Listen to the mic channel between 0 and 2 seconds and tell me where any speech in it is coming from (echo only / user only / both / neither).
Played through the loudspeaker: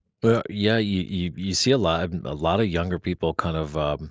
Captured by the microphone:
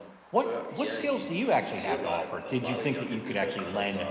both